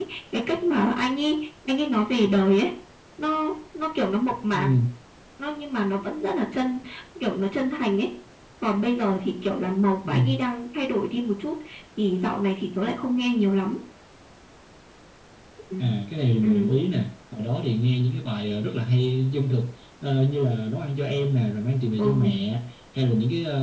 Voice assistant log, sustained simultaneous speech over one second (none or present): none